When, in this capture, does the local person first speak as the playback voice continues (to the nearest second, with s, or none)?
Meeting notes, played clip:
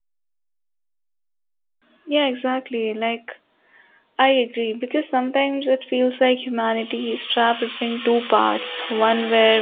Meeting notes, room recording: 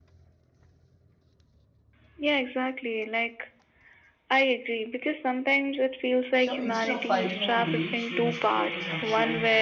6 s